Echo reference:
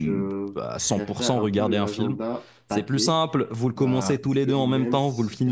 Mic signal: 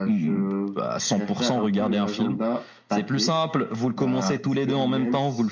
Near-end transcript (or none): none